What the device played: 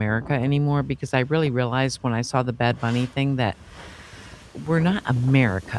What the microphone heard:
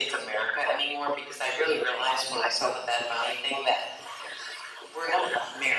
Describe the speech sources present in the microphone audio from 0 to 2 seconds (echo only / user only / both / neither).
echo only